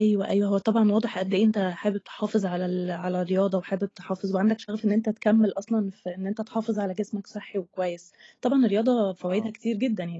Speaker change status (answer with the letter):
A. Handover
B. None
B